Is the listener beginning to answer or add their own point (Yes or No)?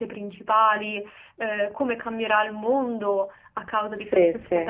No